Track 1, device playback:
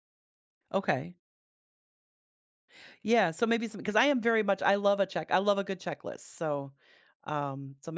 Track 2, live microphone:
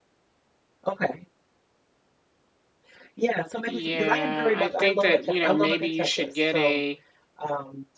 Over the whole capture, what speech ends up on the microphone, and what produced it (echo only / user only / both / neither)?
both